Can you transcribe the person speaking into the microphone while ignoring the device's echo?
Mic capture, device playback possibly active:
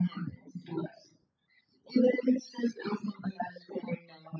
none

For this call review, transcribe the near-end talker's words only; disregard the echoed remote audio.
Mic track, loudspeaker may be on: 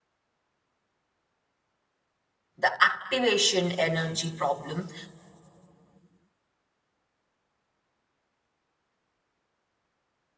the activation energy problem.

